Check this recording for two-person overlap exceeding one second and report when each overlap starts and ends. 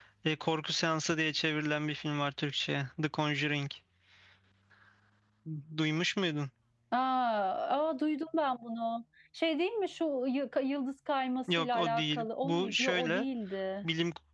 11.6-13.2

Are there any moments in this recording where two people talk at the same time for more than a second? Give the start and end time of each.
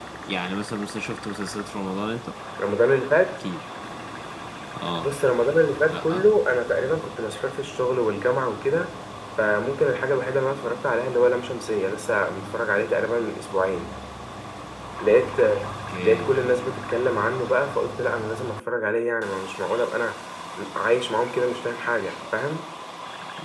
none

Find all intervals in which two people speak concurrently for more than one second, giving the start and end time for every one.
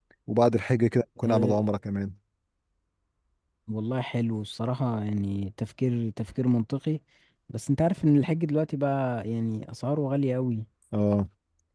none

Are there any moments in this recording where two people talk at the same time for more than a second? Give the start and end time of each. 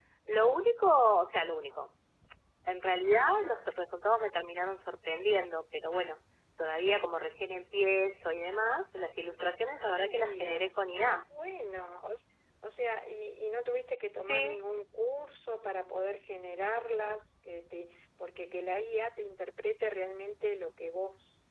9.9-11.2

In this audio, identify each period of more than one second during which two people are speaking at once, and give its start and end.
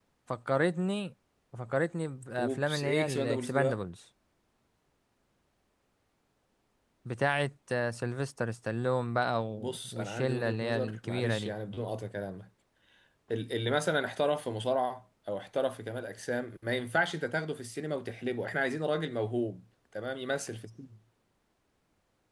2.4-3.8, 9.5-11.5

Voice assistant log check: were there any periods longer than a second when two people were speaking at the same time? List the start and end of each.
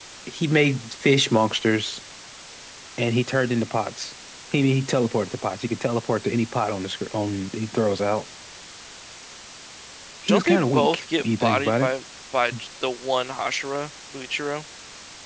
10.3-11.9

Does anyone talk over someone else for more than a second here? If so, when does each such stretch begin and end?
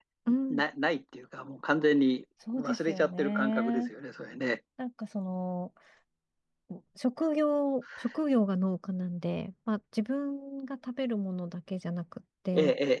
2.6-3.9

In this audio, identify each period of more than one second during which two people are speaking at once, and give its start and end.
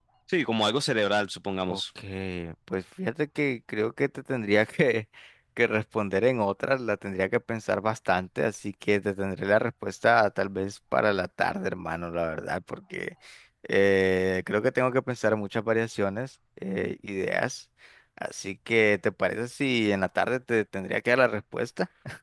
none

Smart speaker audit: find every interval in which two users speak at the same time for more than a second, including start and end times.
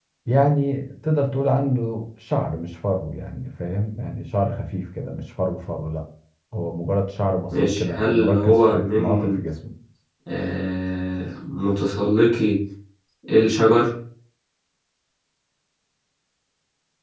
7.6-9.4

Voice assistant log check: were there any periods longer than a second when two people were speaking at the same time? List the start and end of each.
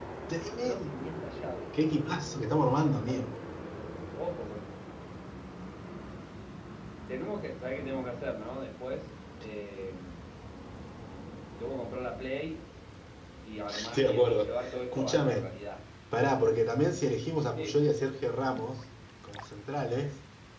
13.6-15.4

